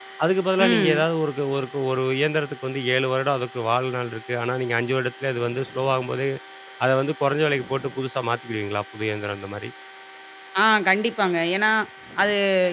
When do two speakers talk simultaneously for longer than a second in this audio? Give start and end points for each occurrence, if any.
none

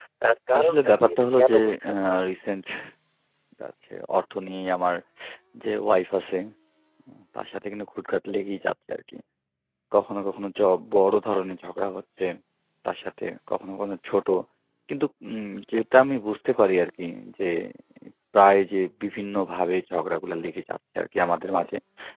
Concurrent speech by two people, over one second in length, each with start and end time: 0.6-1.9

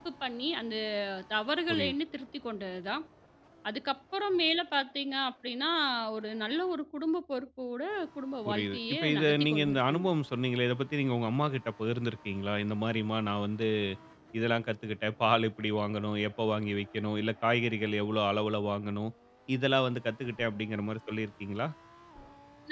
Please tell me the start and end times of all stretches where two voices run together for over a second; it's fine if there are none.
8.5-10.1

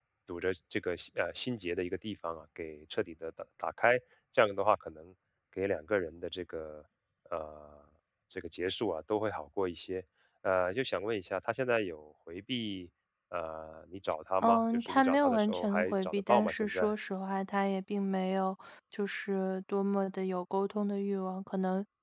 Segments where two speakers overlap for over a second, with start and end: 14.4-16.9

